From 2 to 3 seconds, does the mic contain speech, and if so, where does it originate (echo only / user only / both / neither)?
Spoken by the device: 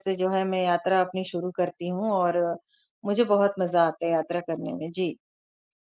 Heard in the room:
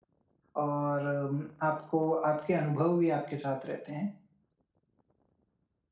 user only